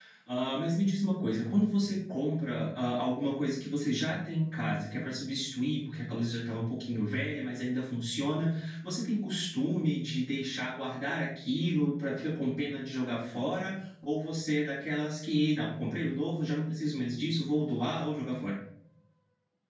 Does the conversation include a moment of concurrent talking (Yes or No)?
No